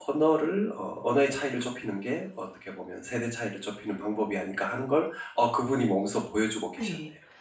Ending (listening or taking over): taking over